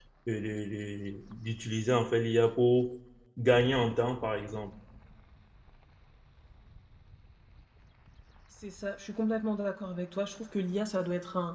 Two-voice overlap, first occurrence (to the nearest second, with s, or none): none